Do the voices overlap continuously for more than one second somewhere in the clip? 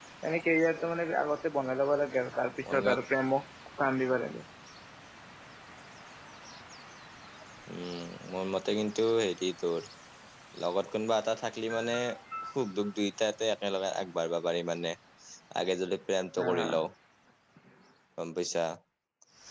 No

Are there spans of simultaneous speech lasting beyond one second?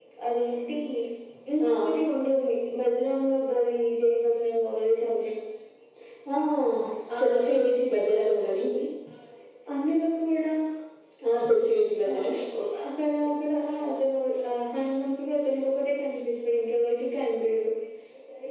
Yes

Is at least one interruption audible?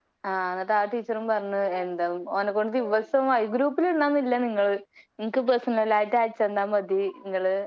No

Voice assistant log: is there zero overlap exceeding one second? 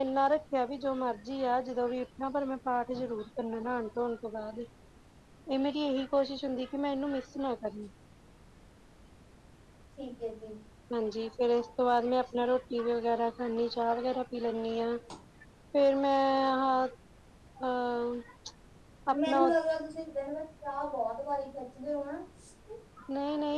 Yes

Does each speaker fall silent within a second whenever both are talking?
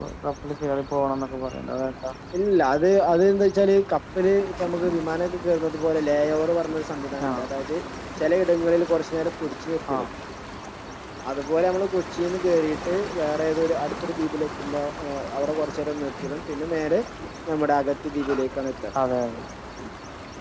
Yes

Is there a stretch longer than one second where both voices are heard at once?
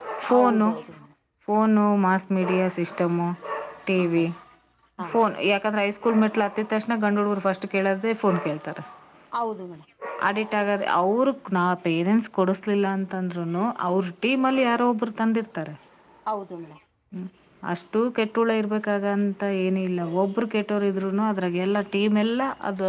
No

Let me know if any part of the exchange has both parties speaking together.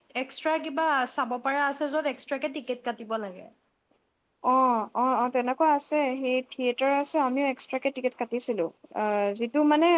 No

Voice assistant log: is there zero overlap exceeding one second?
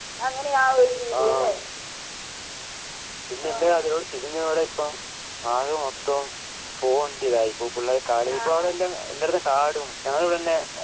Yes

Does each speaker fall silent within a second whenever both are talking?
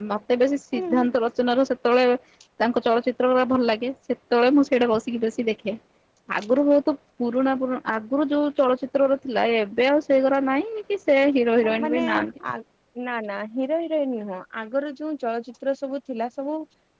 Yes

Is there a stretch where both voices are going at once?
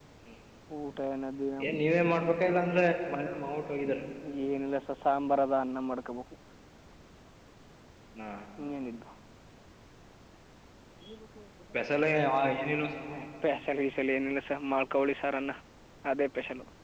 No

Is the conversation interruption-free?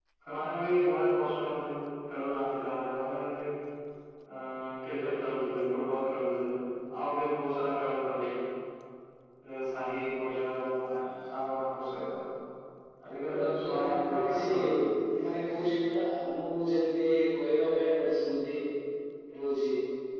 No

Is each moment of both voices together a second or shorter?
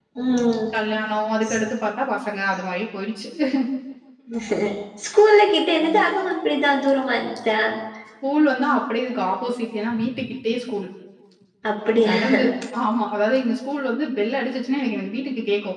Yes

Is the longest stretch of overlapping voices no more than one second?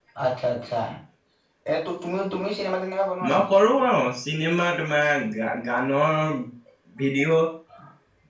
Yes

